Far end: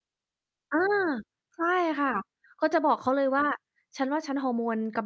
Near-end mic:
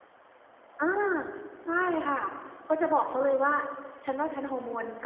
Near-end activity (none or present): none